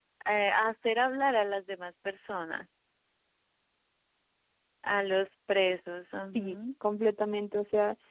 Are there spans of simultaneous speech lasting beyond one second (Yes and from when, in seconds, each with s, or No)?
No